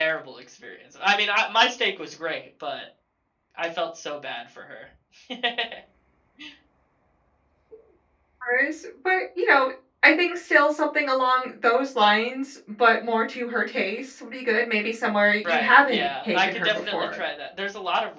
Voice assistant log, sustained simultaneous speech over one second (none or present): present